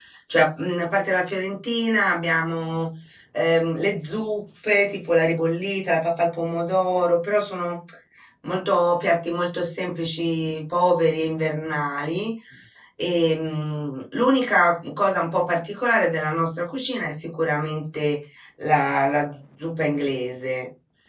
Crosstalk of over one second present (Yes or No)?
No